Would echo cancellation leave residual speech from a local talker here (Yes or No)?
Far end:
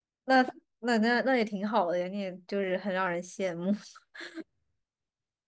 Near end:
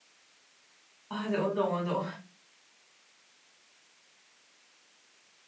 Yes